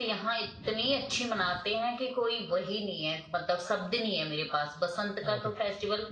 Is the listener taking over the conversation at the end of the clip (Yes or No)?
No